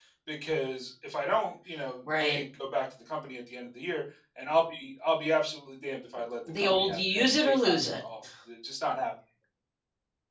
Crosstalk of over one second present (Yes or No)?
Yes